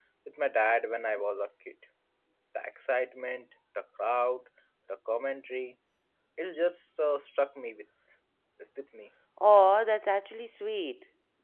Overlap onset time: none

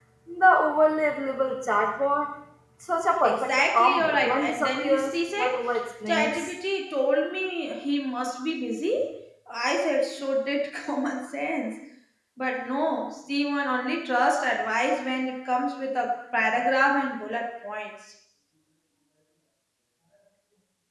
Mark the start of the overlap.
3.2 s

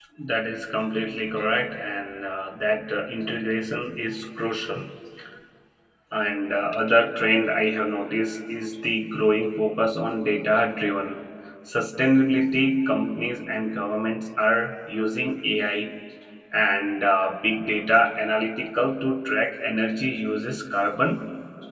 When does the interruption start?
none

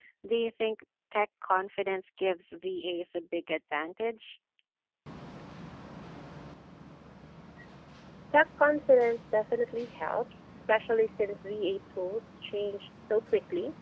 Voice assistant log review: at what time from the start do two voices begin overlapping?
none

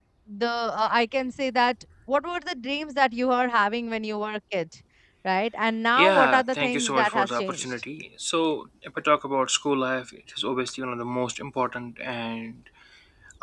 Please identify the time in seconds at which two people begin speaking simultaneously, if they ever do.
6.0 s

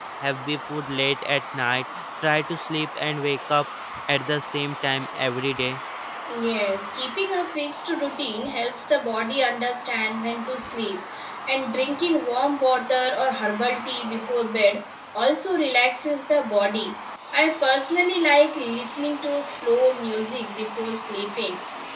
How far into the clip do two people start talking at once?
none

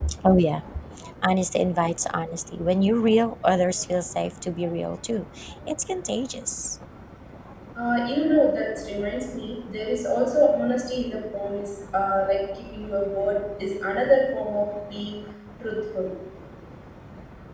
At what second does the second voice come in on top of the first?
none

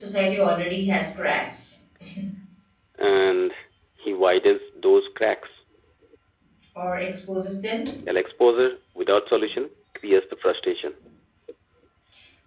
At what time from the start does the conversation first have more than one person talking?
none

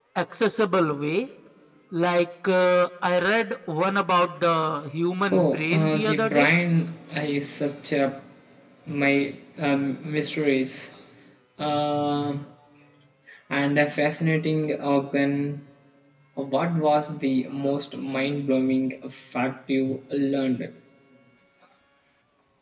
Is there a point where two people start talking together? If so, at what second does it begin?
5.3 s

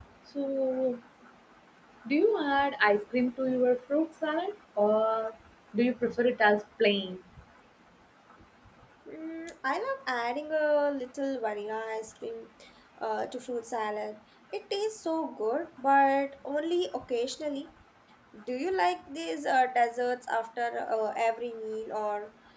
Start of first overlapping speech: none

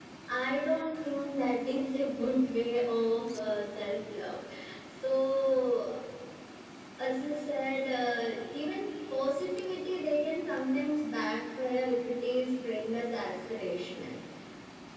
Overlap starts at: none

